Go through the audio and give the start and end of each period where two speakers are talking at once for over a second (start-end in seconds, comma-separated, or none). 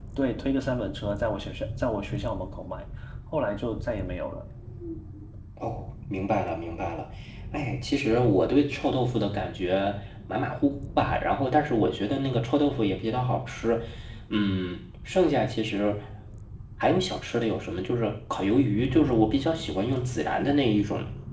none